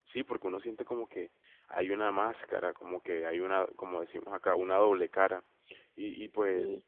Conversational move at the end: listening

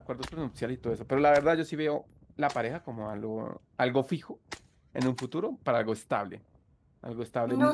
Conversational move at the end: taking over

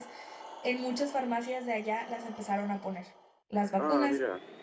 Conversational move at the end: listening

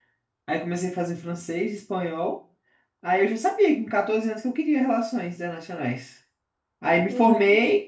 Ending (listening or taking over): listening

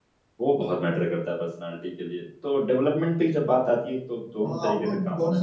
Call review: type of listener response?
taking over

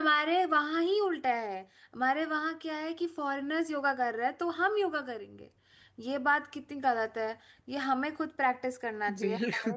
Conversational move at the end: listening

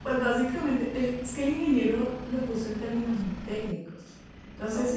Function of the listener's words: listening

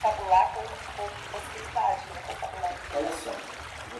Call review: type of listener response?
taking over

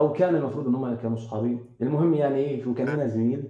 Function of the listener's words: listening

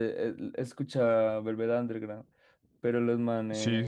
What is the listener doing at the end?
listening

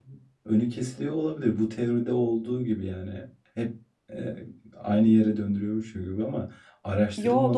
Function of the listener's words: listening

